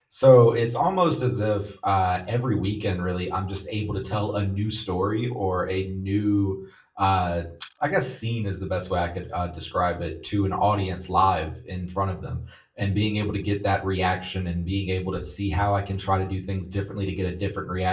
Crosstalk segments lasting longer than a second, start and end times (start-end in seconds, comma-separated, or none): none